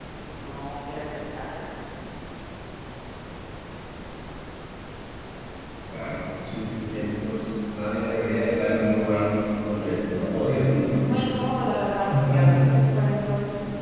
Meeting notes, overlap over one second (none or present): none